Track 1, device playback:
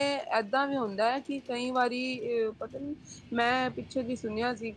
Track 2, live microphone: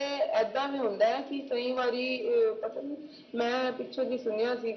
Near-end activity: none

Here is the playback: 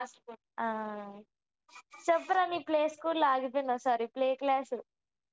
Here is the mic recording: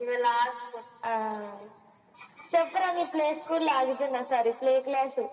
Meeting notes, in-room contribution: none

